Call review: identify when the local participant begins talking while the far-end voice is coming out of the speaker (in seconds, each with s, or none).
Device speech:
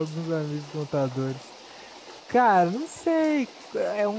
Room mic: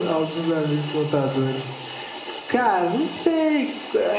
none